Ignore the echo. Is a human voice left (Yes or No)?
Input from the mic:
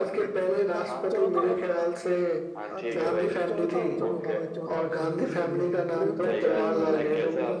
Yes